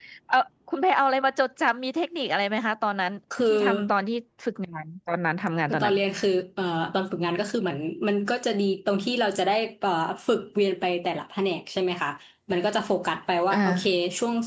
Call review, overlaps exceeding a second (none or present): none